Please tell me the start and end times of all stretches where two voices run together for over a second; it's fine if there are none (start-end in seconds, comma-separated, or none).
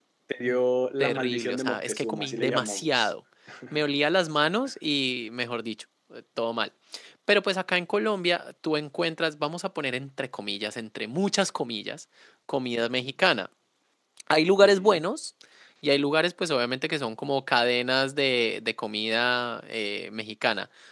1.0-3.1